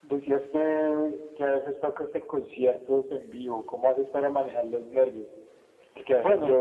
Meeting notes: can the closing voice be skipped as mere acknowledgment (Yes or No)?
Yes